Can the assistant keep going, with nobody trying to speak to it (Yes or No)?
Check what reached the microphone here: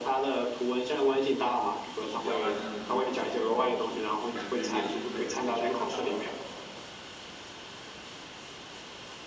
No